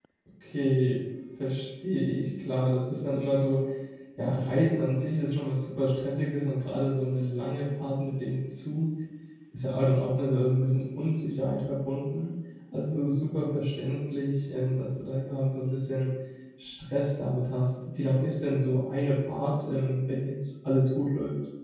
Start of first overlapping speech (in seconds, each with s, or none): none